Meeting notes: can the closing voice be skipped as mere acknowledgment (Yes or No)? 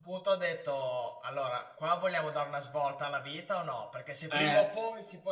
Yes